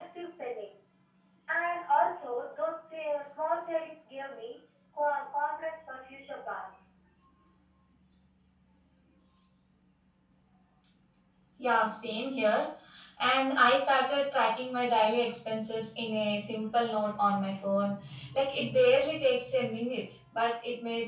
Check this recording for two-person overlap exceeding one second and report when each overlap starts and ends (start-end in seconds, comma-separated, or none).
none